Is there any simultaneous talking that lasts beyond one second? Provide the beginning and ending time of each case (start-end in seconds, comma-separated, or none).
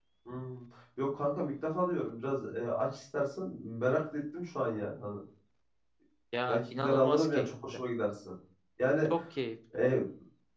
6.5-7.8